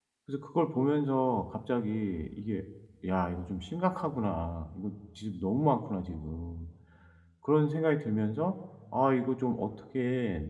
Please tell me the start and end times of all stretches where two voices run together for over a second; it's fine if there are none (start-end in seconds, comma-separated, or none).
none